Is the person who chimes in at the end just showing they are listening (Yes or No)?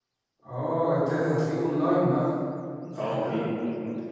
No